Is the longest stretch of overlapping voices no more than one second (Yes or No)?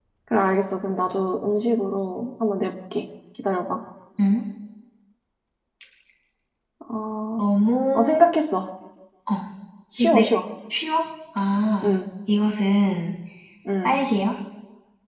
Yes